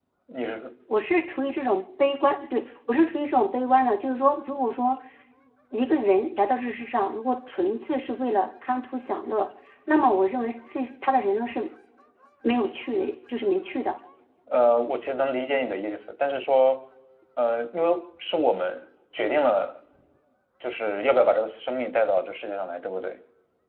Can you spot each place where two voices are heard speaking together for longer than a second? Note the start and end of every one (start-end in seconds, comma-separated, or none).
none